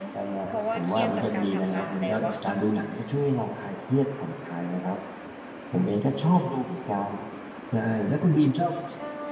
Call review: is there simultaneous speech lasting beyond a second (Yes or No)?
Yes